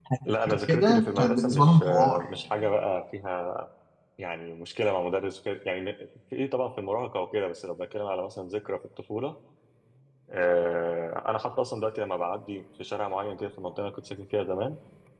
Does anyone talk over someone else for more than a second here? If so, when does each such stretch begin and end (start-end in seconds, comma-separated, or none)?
0.7-2.2